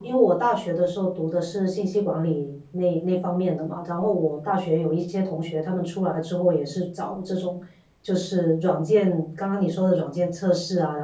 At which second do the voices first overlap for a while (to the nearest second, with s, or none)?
none